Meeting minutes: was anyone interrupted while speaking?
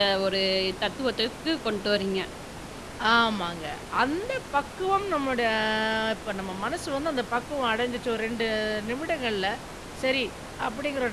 No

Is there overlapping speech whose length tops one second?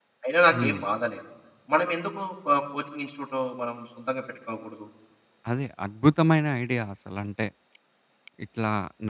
No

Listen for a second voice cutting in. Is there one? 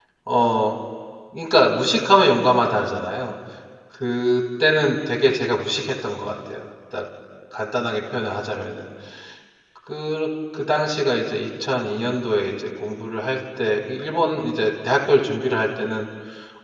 No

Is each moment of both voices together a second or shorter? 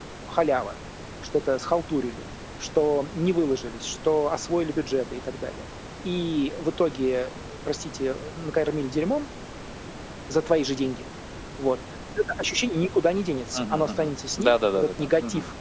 No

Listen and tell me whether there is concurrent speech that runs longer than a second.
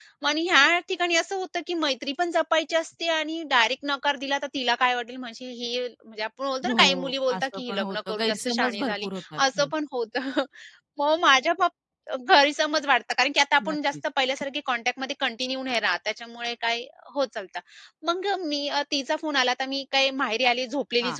Yes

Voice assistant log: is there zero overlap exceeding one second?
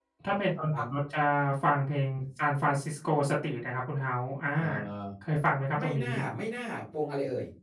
Yes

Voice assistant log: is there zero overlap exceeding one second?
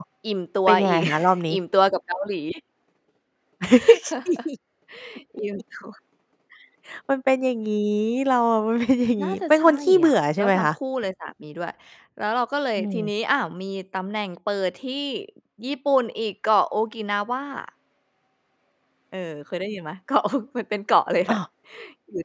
No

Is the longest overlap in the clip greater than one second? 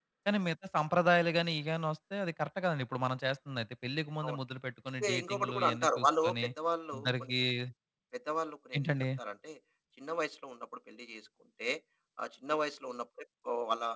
Yes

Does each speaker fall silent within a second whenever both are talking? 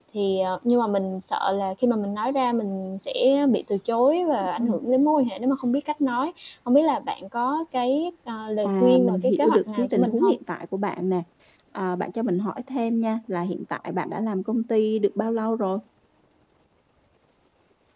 No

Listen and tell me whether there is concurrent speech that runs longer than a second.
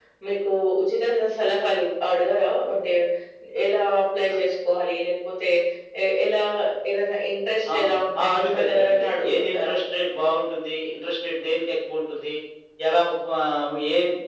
Yes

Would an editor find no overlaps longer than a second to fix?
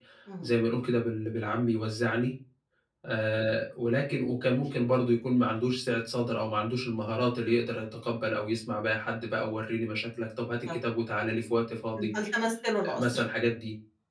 Yes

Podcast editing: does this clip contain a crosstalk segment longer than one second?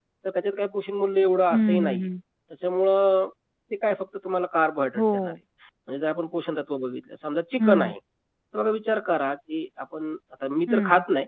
No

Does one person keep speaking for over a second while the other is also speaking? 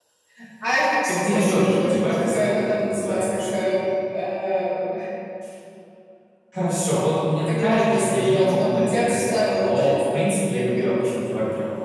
Yes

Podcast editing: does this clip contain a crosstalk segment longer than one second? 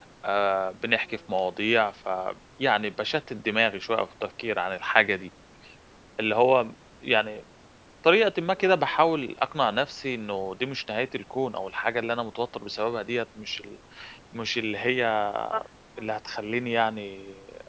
No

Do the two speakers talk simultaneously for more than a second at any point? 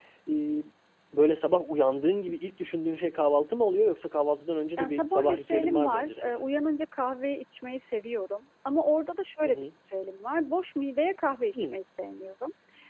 Yes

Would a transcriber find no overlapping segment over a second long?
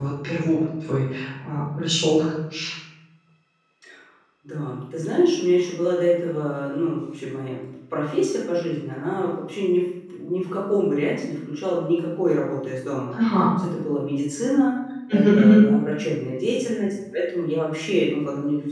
Yes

